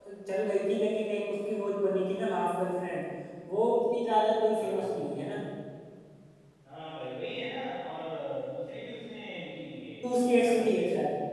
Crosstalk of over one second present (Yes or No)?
No